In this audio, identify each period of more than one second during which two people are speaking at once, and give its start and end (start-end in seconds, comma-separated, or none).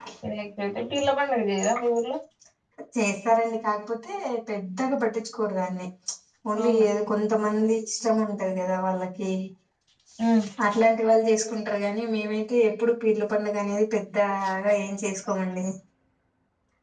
none